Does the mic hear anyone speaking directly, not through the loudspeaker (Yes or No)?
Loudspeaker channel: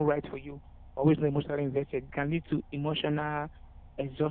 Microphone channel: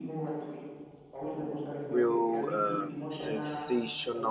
Yes